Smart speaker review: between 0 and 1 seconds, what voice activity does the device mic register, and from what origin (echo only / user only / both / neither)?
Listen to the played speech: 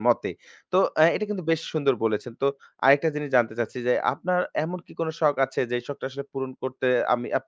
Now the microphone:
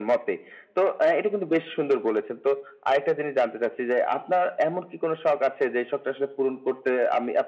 echo only